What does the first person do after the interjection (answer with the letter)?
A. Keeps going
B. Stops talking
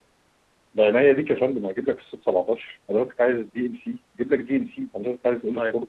B